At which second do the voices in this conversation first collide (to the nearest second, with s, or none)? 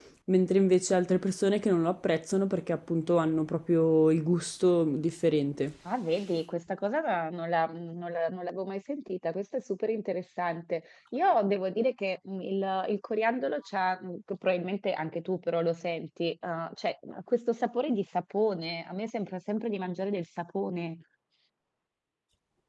none